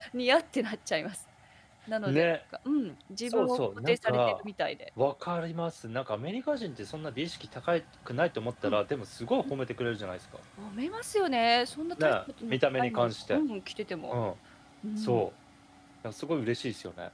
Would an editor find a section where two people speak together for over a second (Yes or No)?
Yes